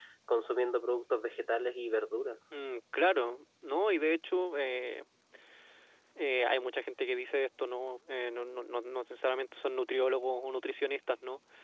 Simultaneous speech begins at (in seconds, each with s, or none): none